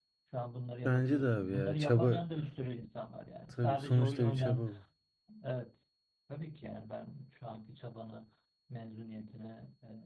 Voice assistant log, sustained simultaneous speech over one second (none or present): present